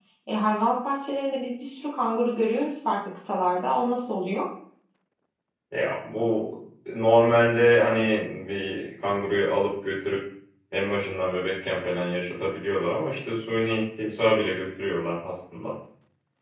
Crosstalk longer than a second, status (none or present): none